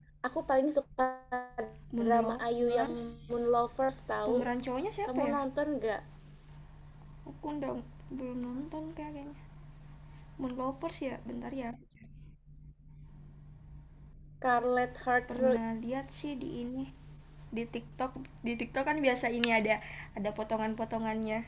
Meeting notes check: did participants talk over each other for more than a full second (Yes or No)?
Yes